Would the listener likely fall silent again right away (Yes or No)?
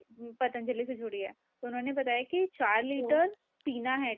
Yes